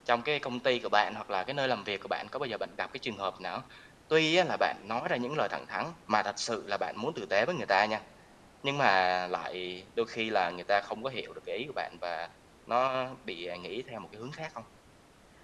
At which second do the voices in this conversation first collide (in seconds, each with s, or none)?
none